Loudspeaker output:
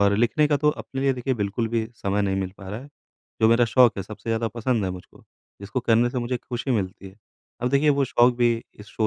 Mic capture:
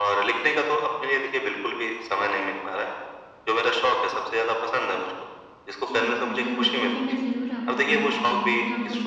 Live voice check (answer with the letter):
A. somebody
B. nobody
A